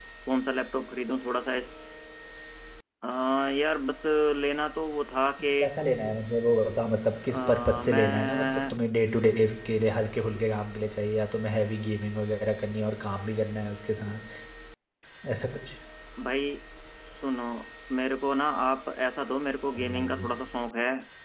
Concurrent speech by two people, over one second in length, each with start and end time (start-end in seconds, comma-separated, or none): 7.2-8.8